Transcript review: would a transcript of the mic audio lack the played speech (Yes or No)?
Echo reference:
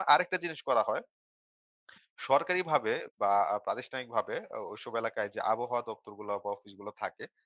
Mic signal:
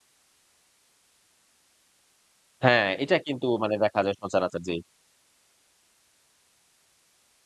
Yes